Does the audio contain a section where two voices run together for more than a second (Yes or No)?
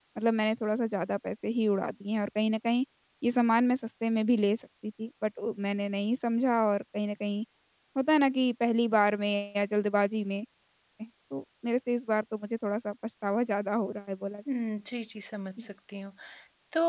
No